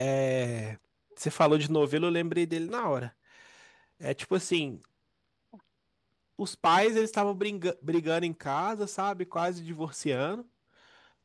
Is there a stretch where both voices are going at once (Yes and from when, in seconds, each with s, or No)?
No